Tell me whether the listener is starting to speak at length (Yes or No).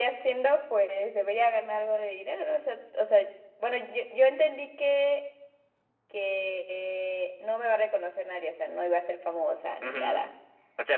Yes